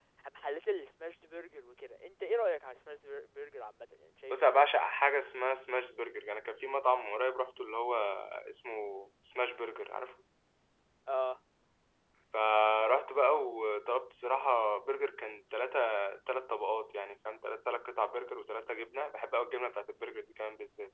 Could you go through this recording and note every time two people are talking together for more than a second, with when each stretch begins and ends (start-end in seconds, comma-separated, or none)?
none